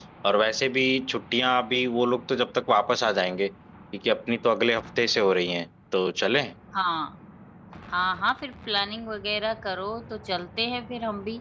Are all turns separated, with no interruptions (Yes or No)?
Yes